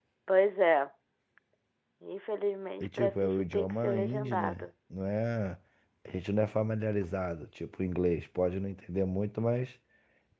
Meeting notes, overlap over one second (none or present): present